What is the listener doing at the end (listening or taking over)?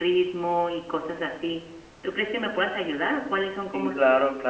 taking over